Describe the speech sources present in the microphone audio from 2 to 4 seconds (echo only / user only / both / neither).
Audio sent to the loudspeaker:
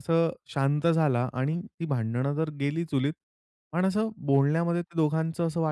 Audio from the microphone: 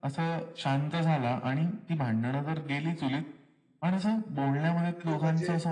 echo only